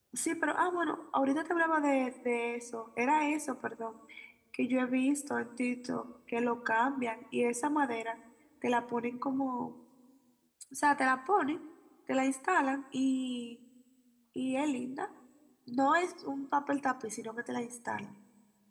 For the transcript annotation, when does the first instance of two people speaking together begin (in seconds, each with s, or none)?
none